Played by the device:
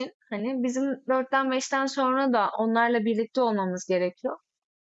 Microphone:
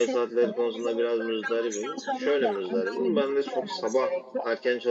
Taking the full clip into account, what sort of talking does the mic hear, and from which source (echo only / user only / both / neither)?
both